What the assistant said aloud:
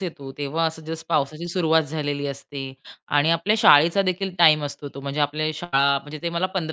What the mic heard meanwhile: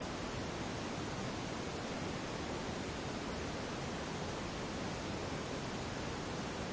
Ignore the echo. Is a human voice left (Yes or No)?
No